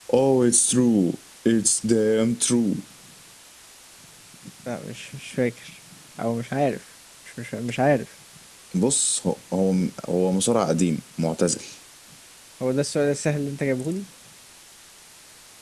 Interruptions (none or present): none